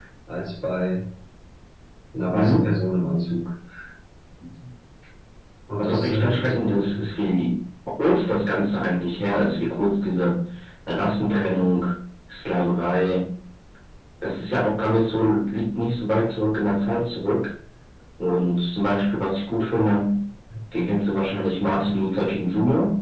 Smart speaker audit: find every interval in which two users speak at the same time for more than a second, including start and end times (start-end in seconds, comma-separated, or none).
5.8-7.0